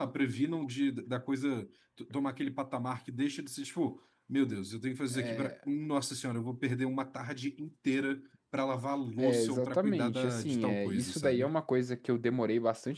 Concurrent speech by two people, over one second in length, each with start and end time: 9.2-11.5

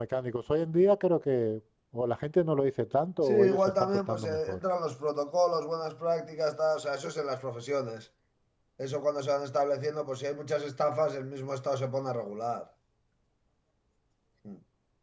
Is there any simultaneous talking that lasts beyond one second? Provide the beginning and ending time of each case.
3.2-4.6

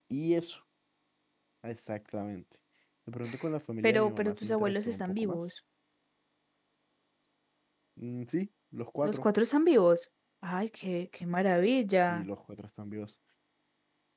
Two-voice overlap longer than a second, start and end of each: 3.8-5.5

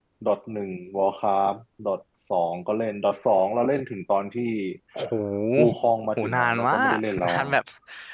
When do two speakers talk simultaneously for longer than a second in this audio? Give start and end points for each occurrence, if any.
6.2-7.5

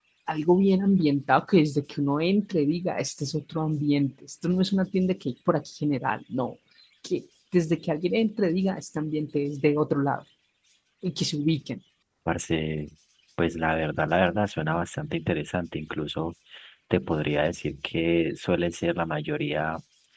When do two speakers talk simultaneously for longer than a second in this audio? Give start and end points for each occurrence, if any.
none

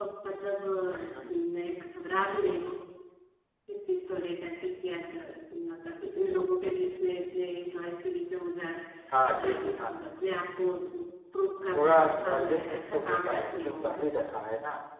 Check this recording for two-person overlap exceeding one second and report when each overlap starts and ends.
11.7-13.9

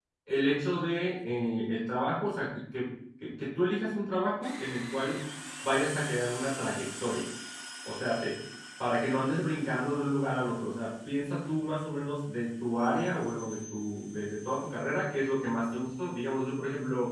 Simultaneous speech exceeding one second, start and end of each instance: none

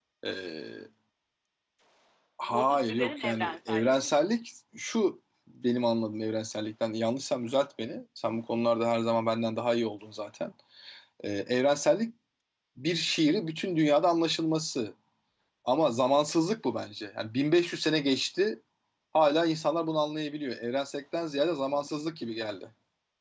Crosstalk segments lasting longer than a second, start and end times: 2.4-4.3

